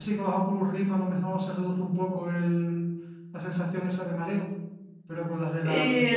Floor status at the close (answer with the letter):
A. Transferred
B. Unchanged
A